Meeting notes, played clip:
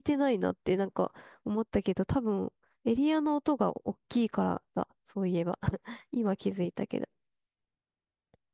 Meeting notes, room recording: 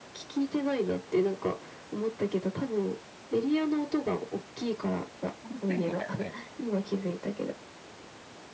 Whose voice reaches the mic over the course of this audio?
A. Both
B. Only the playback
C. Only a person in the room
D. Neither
A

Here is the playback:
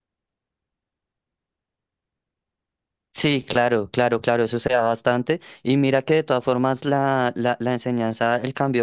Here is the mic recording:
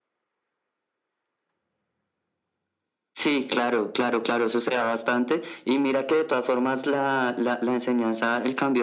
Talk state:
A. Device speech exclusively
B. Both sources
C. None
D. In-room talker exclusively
A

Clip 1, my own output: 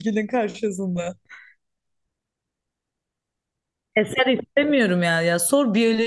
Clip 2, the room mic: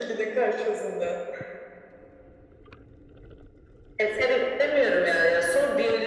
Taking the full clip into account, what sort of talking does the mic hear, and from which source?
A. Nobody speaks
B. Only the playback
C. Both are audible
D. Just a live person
B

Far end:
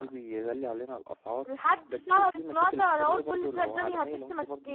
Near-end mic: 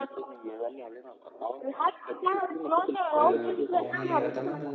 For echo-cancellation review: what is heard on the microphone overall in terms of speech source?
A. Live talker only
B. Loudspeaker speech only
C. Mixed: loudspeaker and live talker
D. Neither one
C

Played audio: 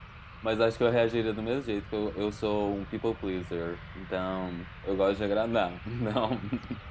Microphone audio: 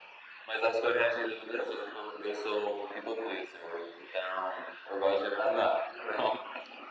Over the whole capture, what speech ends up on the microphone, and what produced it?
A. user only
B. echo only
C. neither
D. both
B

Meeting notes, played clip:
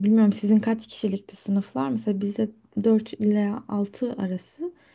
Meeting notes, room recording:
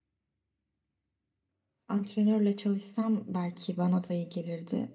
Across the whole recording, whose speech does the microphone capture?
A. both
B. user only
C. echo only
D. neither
B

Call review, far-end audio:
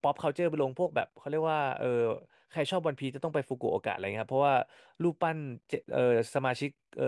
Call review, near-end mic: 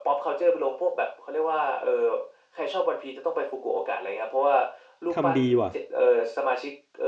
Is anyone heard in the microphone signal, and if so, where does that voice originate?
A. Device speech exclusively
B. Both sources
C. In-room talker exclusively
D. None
B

